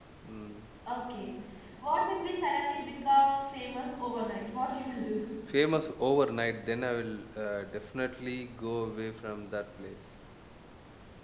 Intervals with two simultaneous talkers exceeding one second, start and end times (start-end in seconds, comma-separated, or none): none